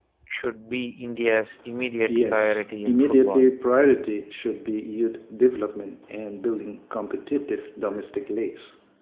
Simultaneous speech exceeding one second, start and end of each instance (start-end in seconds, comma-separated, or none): 2.1-3.5